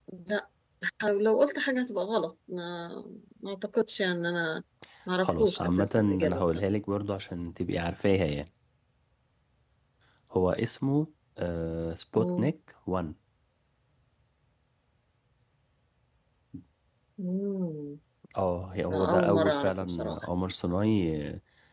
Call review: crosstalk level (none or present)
present